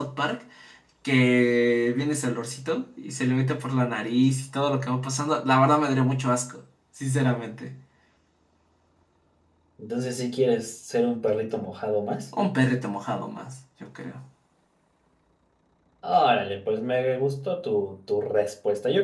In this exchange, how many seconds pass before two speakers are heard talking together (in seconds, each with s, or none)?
none